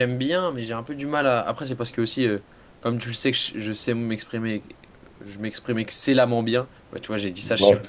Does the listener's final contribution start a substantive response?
No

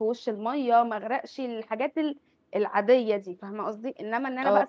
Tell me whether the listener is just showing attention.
No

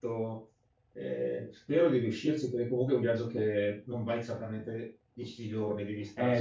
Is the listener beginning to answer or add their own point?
Yes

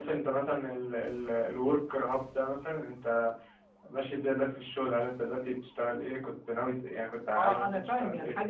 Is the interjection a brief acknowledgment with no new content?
No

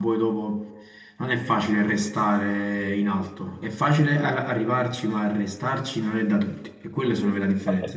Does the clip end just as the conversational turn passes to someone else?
Yes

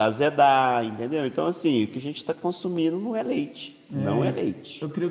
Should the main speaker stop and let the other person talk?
Yes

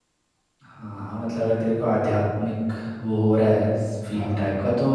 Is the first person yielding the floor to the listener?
No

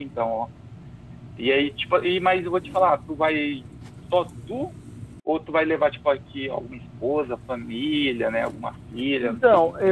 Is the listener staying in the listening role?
No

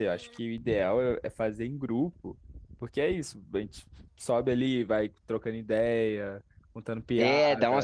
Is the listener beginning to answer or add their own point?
Yes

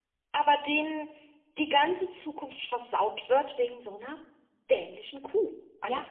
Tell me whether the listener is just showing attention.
No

